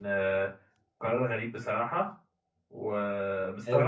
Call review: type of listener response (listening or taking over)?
listening